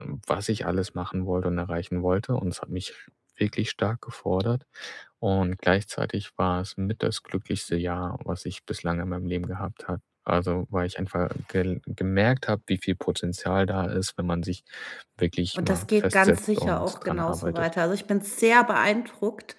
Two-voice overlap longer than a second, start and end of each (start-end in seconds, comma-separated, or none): 15.6-17.7